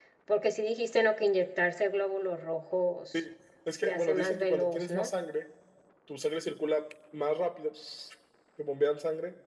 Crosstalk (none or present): present